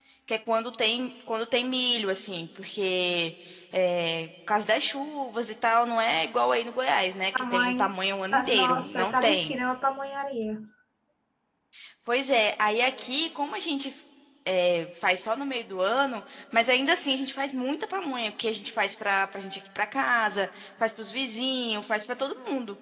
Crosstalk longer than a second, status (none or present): present